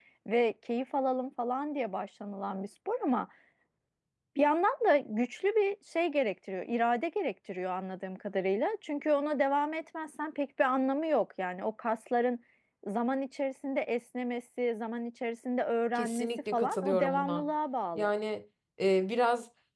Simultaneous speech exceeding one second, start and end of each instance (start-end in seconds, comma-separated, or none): 15.9-17.5